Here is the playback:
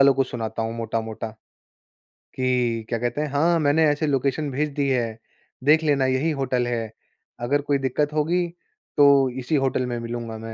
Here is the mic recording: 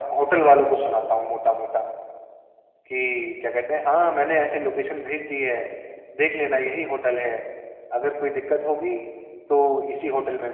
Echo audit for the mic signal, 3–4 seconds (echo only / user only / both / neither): echo only